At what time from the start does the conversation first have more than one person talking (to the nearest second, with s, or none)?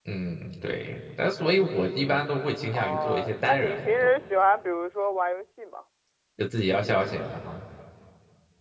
3 s